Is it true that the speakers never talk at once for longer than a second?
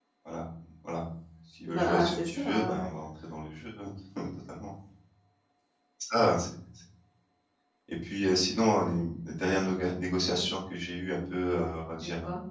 No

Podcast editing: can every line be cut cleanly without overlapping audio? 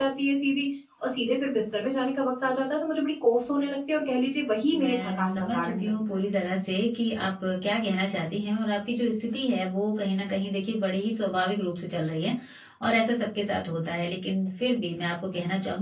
No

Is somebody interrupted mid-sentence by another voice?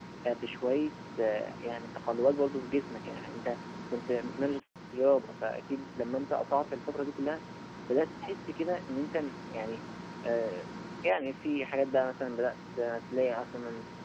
No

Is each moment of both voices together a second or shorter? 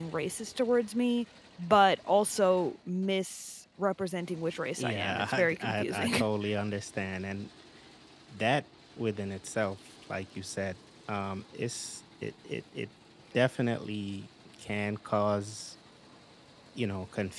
No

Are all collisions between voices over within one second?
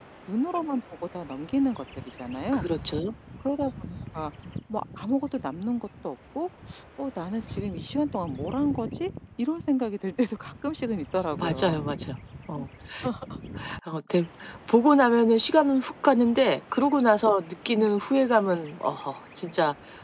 Yes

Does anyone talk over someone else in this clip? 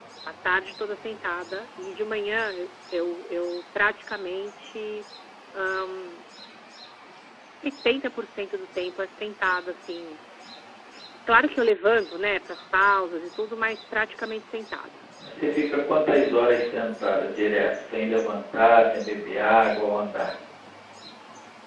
No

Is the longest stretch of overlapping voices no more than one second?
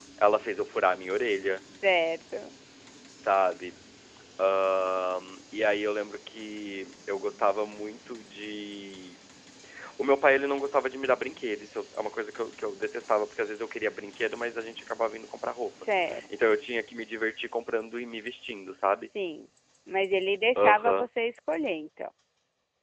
Yes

